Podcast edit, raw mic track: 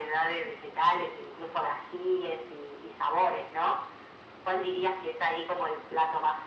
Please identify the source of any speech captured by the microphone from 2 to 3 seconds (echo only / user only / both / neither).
echo only